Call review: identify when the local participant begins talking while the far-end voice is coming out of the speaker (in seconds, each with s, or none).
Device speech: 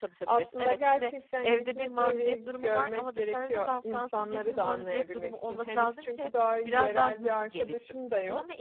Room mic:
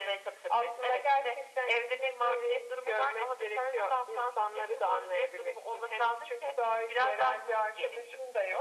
none